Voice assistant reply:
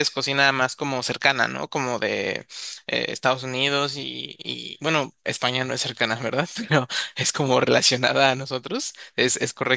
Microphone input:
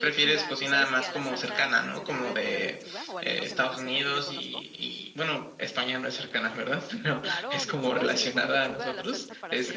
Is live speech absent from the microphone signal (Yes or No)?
No